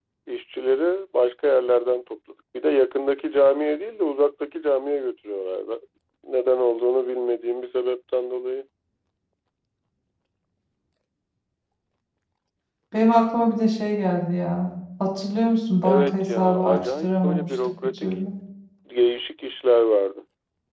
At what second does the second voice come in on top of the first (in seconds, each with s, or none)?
15.8 s